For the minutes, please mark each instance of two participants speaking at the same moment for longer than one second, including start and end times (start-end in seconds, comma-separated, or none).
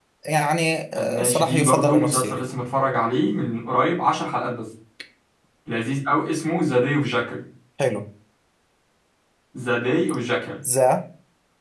0.9-2.4